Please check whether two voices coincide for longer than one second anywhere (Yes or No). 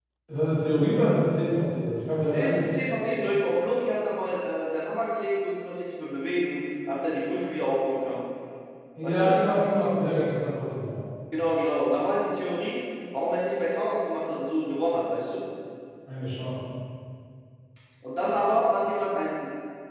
No